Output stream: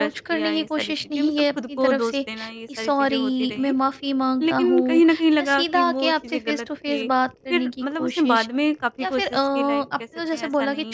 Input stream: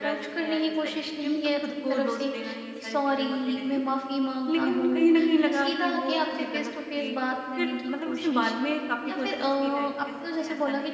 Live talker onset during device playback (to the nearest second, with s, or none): none